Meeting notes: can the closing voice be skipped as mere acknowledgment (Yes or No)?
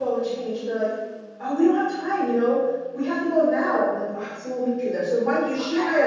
Yes